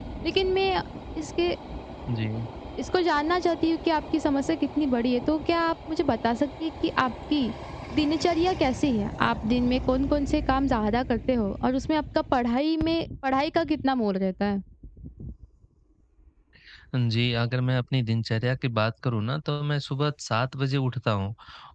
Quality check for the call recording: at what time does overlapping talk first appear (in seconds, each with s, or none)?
none